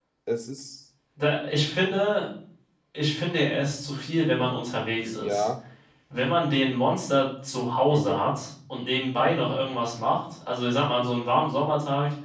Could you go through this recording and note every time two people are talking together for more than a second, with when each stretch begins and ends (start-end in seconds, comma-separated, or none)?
none